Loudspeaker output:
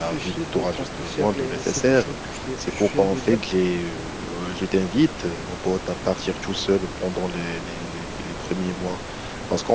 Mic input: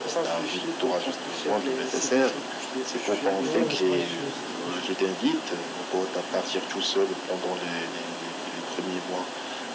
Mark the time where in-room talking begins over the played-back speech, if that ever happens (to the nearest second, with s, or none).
3 s